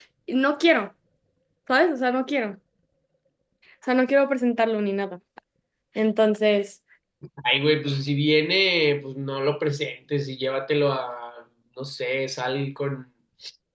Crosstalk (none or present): none